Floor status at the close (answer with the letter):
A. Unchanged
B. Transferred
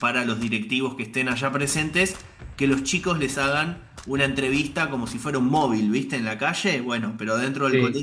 A